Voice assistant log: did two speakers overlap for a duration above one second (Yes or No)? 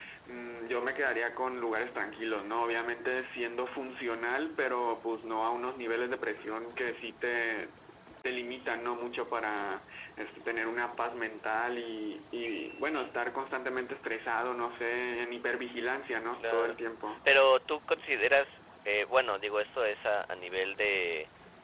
No